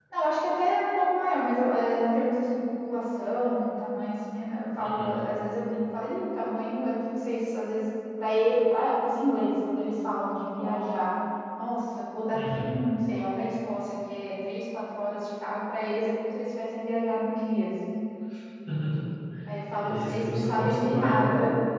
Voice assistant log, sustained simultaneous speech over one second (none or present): present